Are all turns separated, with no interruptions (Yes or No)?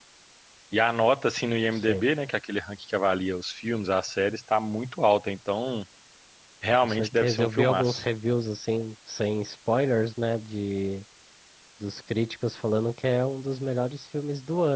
No